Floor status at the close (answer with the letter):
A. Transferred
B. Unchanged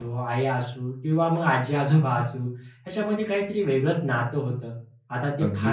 B